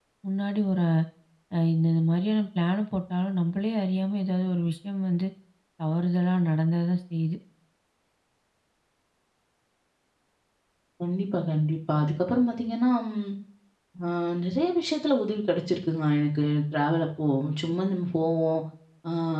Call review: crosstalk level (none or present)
none